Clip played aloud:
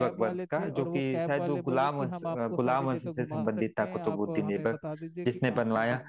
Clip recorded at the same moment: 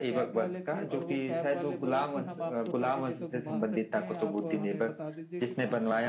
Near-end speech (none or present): none